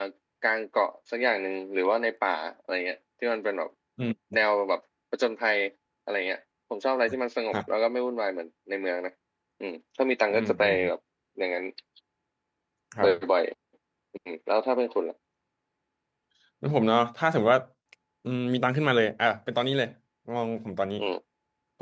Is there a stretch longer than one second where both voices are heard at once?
No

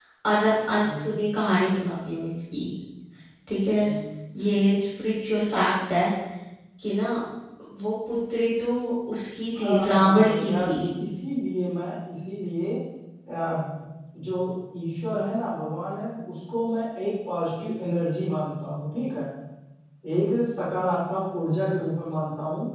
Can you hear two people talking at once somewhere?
Yes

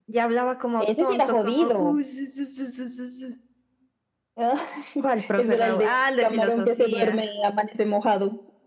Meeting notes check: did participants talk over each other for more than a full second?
Yes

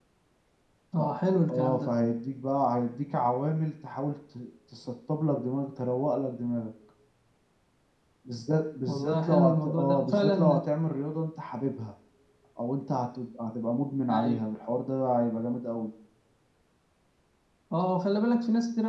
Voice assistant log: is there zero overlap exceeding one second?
No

